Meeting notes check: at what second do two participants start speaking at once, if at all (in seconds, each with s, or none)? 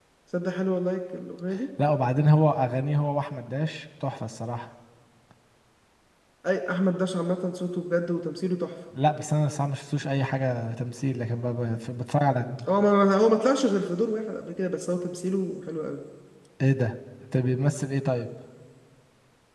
none